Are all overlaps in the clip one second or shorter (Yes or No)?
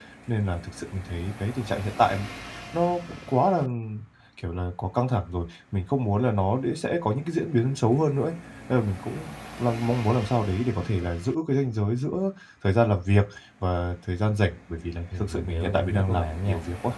No